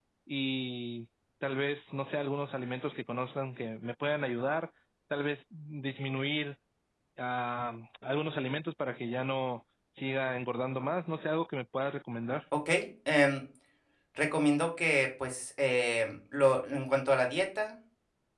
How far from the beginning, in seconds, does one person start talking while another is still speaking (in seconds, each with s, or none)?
none